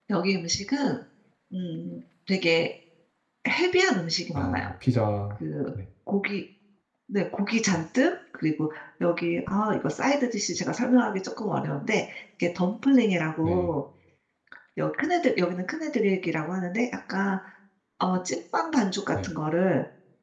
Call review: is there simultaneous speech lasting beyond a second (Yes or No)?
No